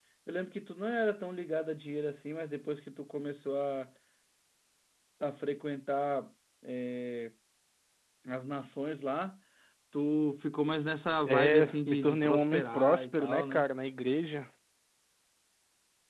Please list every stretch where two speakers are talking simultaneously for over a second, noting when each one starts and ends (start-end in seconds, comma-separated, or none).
11.3-13.7